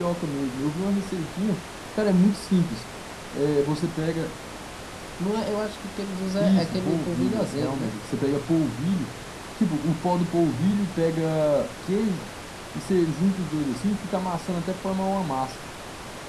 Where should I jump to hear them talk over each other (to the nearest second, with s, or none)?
6 s